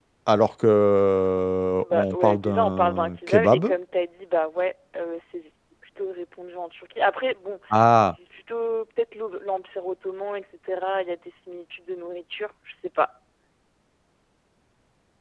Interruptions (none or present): present